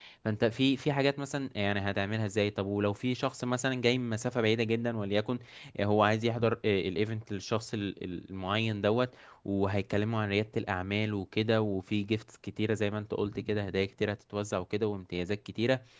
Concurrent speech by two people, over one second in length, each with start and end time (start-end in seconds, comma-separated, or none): none